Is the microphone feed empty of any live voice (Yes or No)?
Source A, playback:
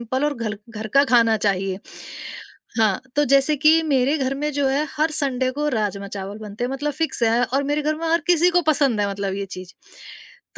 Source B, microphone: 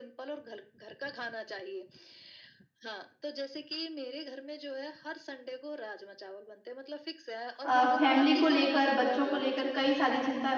No